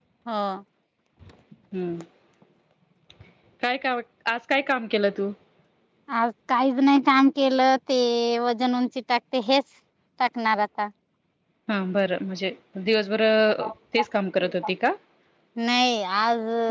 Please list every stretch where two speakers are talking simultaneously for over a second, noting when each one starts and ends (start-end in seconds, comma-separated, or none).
none